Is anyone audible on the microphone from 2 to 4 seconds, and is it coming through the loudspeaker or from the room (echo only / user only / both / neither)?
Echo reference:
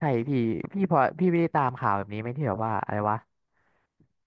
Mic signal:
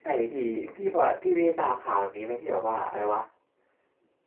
echo only